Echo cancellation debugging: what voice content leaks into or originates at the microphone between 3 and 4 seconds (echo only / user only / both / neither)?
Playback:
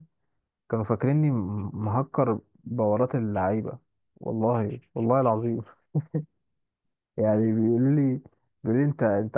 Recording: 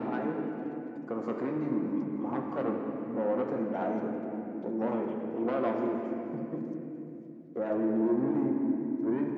echo only